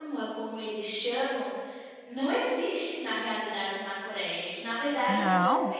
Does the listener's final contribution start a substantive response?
No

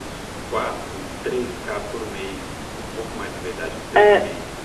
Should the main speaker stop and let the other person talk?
Yes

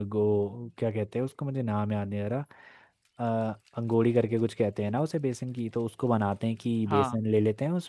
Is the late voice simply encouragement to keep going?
Yes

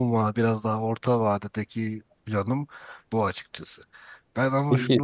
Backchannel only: Yes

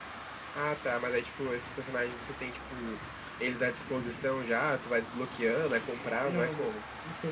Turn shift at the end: Yes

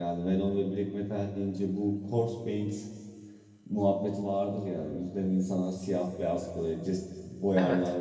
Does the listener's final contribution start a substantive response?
No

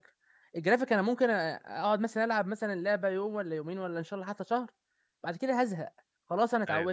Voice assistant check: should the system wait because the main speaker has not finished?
Yes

